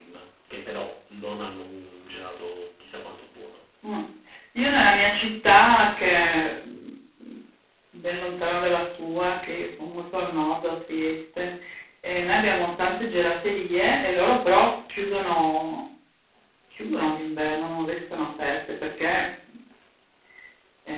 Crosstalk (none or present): none